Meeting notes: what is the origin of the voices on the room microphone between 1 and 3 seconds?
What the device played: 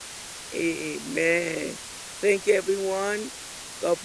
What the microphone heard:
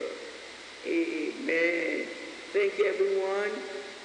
echo only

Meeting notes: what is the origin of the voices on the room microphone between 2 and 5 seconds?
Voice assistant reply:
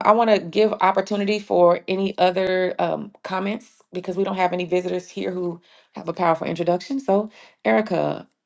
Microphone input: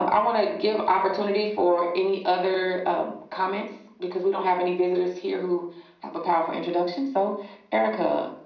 echo only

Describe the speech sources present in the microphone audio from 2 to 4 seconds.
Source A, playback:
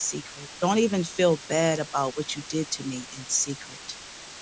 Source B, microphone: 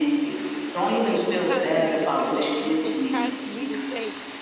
both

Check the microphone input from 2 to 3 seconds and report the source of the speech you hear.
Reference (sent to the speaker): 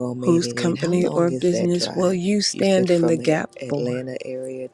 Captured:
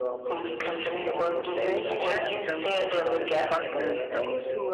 both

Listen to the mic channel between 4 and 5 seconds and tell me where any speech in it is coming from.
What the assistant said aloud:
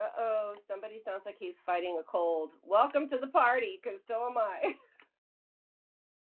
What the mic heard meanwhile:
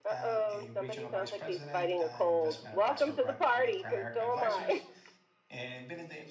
both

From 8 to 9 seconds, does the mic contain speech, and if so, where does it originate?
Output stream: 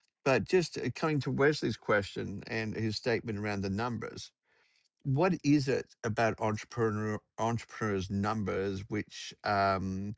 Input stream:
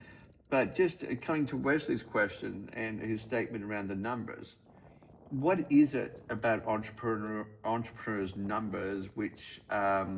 echo only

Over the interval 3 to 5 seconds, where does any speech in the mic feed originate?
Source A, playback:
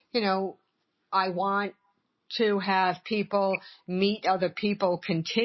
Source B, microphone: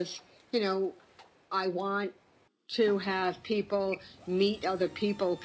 echo only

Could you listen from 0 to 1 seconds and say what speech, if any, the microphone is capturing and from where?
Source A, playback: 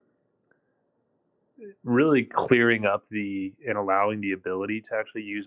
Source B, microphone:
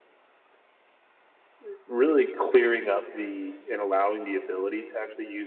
neither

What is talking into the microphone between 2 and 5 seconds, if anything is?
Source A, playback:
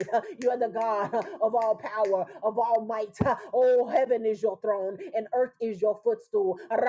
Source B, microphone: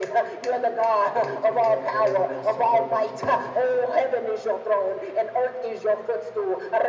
both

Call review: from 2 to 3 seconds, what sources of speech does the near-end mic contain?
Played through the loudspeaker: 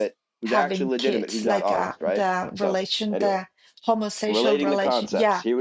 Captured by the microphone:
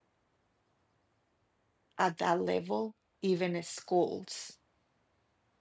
user only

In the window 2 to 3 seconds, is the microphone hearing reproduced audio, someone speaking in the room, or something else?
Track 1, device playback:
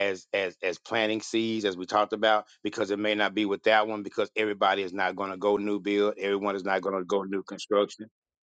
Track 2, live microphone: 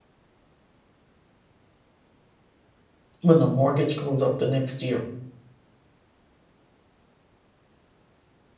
neither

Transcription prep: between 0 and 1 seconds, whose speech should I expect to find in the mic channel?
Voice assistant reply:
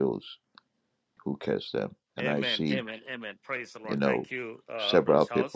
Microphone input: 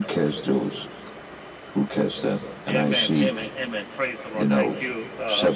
echo only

